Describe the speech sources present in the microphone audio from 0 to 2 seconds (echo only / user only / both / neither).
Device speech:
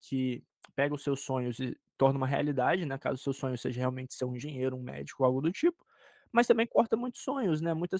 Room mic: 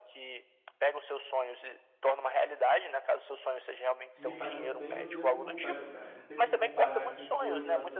echo only